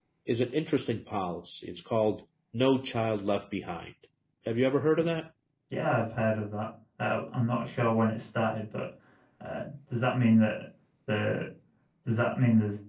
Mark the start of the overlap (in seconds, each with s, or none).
none